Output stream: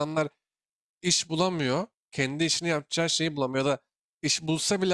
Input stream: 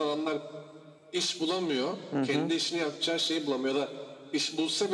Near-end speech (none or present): present